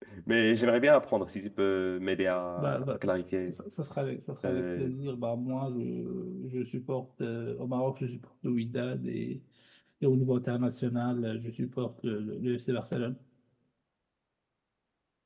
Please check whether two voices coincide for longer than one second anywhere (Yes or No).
No